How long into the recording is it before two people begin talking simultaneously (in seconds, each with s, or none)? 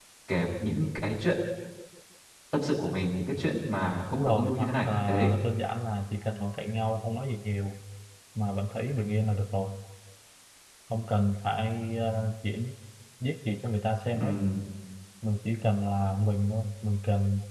4.1 s